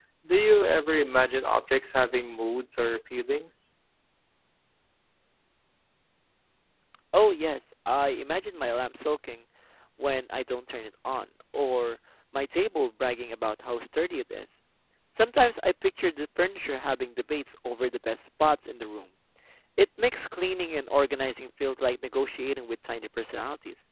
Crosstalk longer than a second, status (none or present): none